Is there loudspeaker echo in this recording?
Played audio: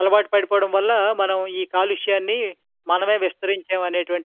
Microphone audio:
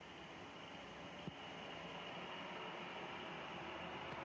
No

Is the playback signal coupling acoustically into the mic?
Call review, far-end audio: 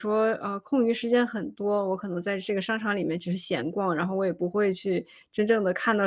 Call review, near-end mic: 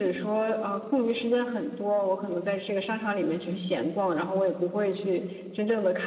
Yes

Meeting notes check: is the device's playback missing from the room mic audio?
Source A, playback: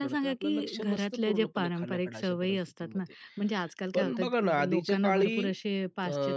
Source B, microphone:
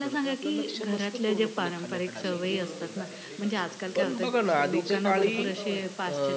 No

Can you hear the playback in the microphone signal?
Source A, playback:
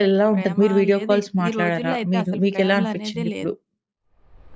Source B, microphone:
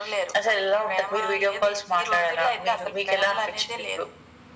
Yes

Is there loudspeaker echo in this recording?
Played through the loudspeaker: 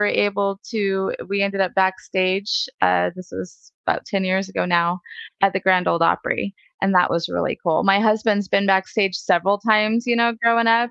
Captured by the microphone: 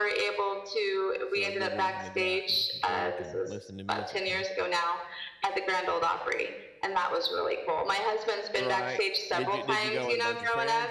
Yes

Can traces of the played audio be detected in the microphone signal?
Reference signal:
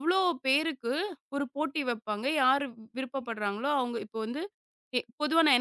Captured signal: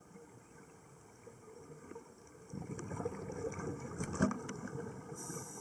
No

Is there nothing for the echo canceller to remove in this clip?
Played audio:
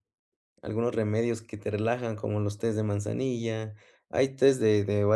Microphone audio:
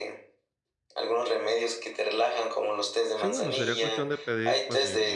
No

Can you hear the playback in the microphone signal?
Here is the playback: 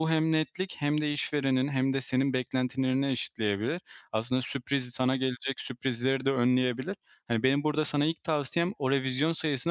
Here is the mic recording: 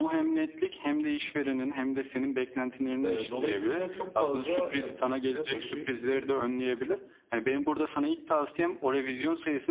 Yes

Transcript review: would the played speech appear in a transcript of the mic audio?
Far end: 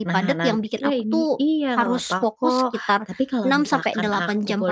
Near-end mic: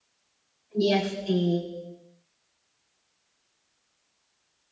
No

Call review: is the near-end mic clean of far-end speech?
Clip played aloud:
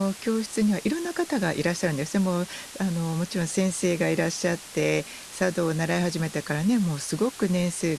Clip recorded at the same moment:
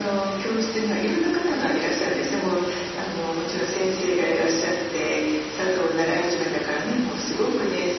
No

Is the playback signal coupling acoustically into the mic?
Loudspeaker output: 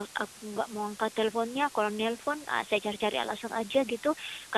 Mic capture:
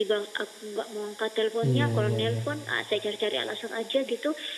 Yes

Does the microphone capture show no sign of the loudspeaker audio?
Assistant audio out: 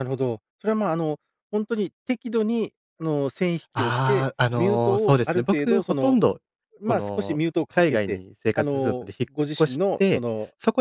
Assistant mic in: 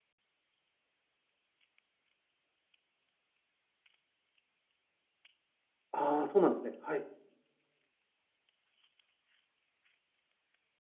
Yes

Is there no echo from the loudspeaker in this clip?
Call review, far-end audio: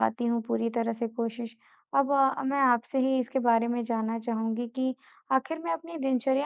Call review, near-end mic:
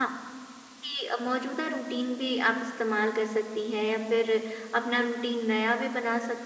Yes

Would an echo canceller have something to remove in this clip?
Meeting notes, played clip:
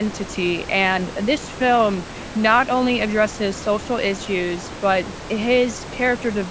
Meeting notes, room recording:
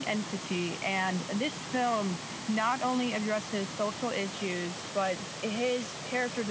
Yes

